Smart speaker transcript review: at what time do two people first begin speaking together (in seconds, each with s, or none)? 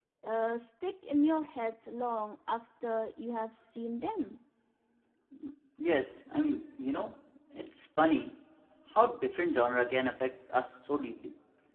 none